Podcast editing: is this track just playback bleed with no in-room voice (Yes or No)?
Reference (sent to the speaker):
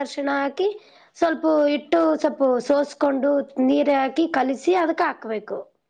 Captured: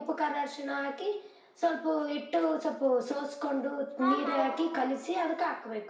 No